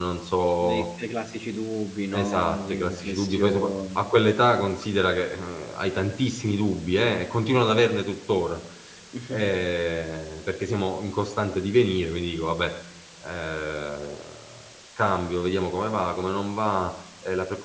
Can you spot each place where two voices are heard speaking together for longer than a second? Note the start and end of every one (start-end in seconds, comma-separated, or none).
2.1-4.1